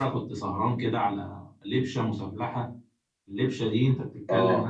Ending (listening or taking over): listening